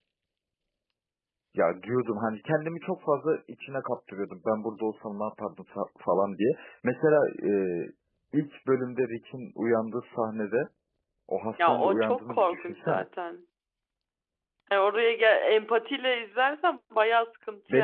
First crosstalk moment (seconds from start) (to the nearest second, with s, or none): 12 s